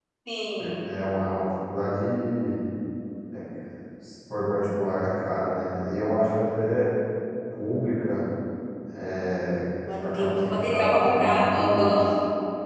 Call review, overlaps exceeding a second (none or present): present